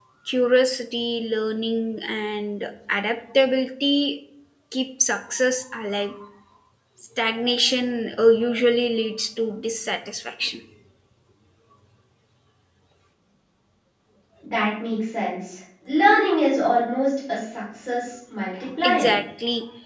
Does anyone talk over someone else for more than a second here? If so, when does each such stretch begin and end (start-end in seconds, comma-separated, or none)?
none